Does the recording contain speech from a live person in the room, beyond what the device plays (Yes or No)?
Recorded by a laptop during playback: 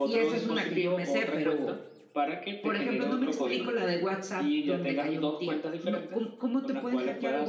No